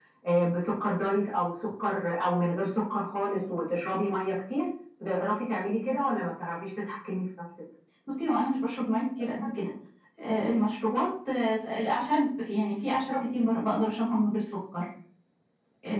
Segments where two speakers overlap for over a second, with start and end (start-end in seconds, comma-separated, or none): none